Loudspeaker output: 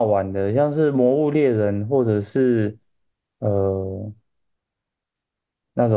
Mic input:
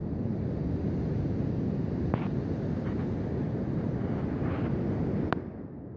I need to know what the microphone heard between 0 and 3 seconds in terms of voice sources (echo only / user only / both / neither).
neither